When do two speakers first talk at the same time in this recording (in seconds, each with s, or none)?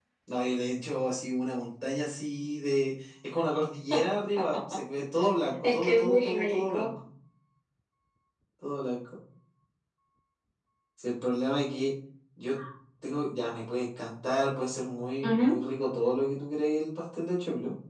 5.6 s